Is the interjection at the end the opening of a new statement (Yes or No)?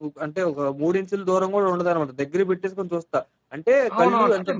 Yes